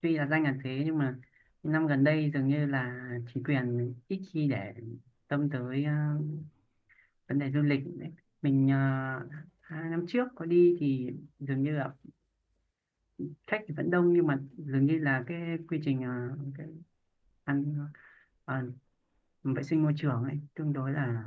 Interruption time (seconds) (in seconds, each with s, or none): none